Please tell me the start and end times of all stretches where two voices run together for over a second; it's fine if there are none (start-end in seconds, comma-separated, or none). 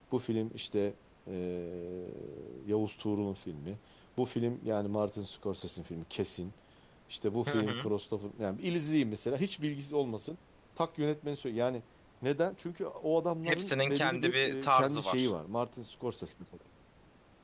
13.4-15.3